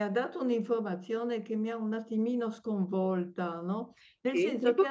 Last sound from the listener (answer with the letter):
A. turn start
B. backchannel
B